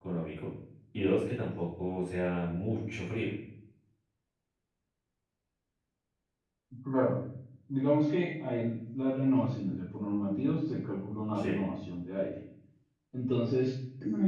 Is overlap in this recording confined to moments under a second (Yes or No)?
Yes